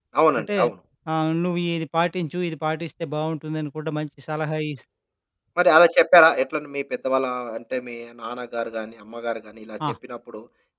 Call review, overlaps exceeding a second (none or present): none